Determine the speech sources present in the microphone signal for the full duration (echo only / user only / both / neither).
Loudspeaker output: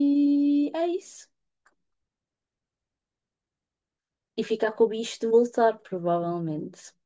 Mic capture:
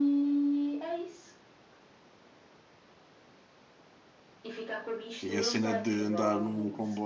both